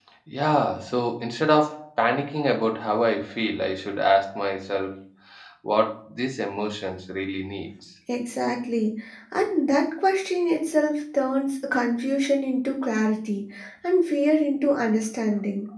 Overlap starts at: none

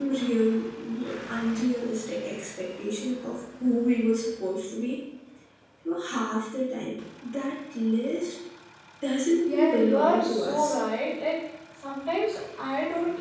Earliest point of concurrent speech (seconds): 9.5 s

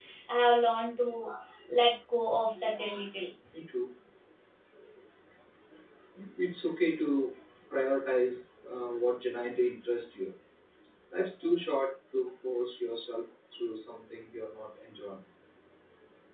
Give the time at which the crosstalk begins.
none

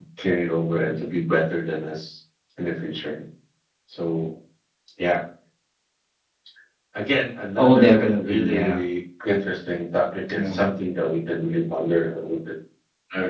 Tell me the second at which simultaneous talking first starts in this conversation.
7.6 s

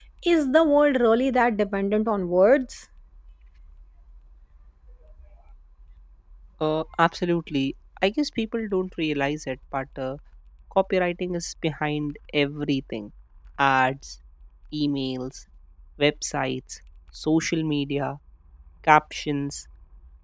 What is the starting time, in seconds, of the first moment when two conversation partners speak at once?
none

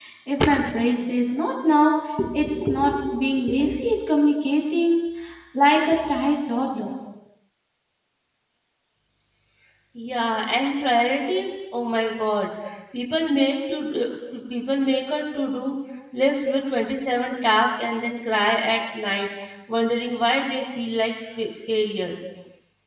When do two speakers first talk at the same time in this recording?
none

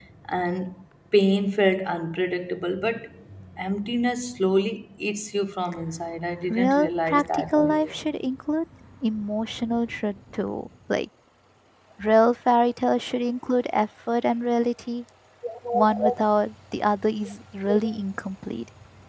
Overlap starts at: 6.5 s

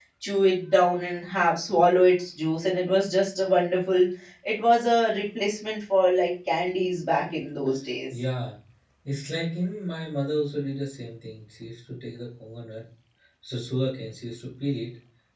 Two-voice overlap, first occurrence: none

